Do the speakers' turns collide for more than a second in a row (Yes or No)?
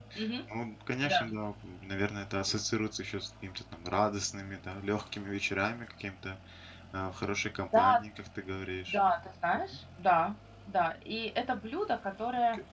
No